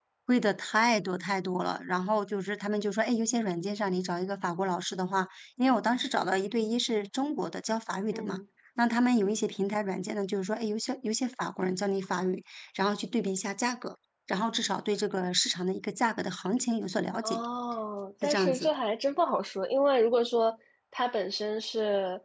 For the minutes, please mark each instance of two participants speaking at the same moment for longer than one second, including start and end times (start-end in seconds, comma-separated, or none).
none